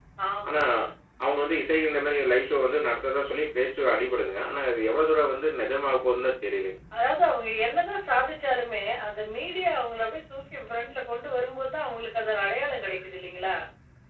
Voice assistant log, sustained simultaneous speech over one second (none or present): none